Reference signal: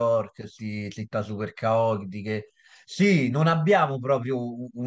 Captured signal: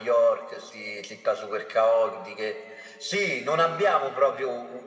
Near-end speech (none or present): none